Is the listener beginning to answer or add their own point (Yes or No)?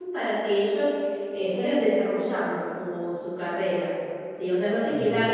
No